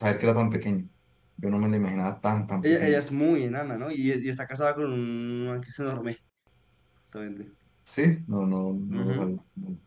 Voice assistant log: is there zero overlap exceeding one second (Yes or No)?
Yes